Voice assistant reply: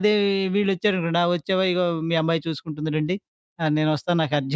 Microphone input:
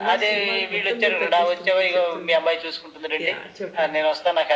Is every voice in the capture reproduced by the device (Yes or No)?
No